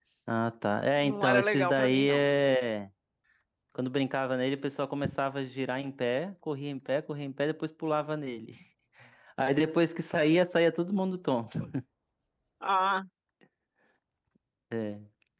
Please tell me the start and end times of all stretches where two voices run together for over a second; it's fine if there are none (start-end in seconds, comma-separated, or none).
1.0-2.3